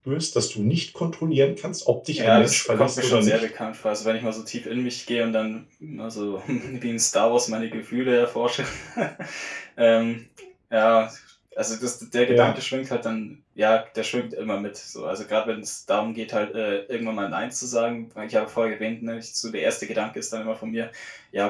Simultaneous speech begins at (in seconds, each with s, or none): 2.2 s